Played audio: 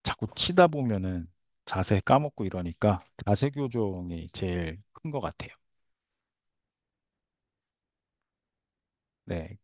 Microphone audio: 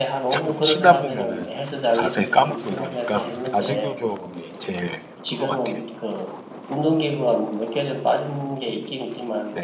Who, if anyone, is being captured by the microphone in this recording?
both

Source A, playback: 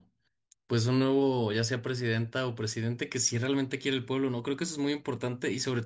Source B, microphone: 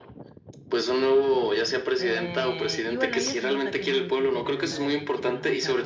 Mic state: both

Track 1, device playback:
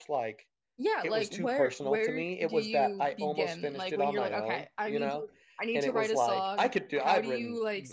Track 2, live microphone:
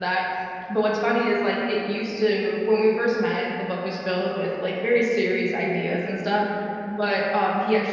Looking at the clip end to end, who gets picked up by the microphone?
user only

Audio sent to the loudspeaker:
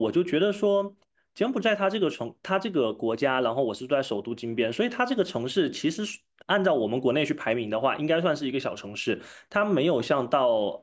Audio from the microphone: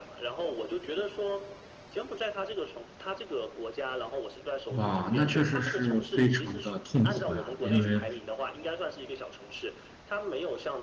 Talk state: both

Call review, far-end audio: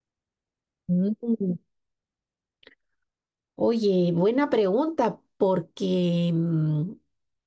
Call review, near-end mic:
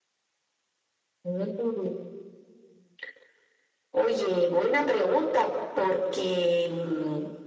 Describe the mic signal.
echo only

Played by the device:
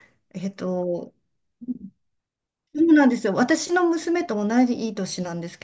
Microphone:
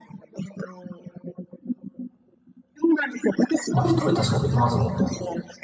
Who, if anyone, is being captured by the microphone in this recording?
both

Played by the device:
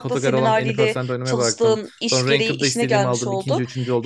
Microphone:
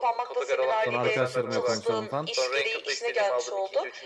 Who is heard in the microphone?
both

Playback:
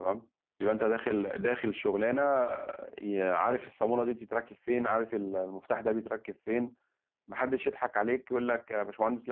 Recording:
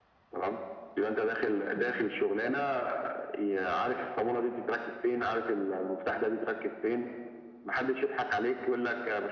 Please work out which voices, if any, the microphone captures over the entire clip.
echo only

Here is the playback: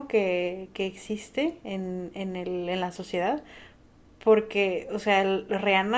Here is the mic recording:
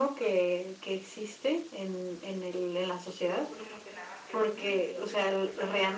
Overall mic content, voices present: both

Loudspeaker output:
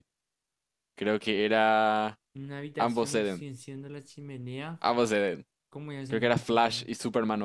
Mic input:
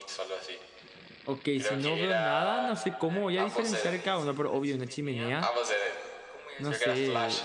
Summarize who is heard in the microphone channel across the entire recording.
both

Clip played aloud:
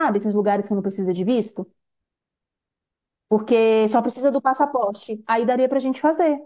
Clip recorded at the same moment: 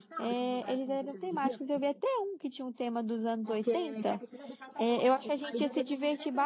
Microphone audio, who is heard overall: both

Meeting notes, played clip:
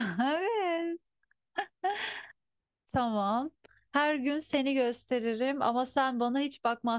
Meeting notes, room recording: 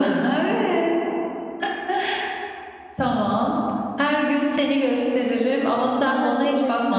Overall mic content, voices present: both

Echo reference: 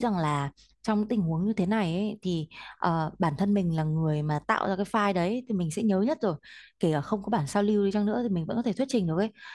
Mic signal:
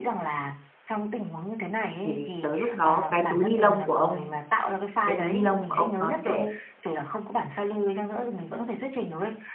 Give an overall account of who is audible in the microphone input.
both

